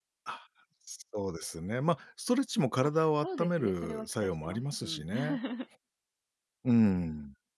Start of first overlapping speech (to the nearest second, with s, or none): 3 s